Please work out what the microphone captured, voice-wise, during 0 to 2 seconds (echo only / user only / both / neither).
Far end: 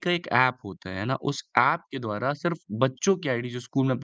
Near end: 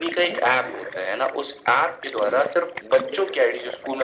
echo only